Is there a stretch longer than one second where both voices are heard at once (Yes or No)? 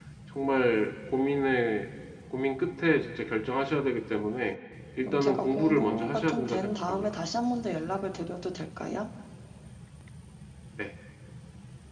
Yes